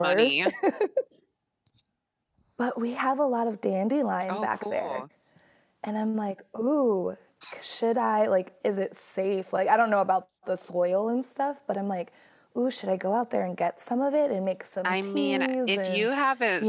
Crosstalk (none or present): present